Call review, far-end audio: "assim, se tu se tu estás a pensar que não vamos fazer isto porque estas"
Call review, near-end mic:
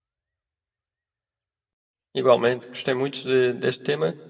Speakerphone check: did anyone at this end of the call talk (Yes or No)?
Yes